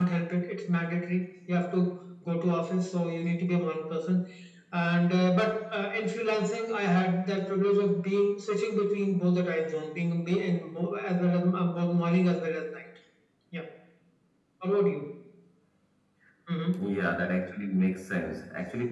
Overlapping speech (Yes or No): No